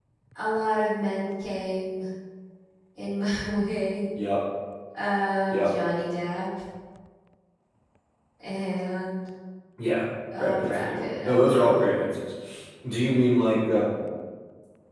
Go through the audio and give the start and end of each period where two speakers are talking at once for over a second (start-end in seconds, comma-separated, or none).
10.4-11.9